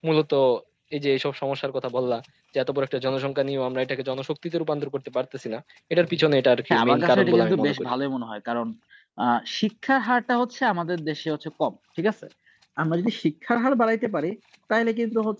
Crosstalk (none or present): present